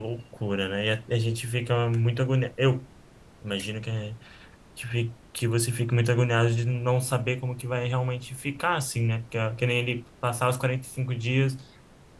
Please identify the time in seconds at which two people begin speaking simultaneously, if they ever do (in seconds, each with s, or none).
none